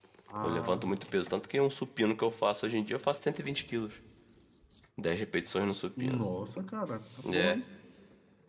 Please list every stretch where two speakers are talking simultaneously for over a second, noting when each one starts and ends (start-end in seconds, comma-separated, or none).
none